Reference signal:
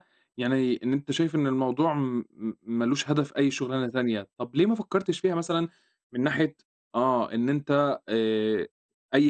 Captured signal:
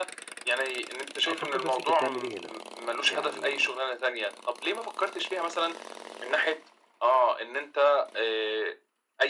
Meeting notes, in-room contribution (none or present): present